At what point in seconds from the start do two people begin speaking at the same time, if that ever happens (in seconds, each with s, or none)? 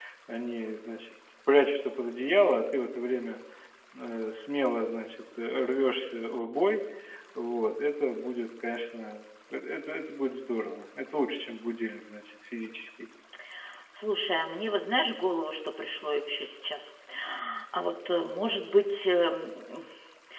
none